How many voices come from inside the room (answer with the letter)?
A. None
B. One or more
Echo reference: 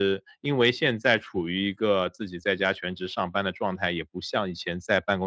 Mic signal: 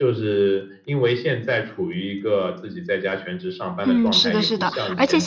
B